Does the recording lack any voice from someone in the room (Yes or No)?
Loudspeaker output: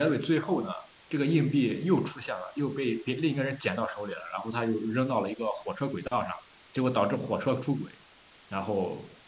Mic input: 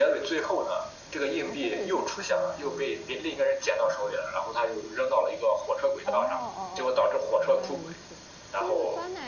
No